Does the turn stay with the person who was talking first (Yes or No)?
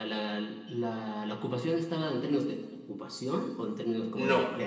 No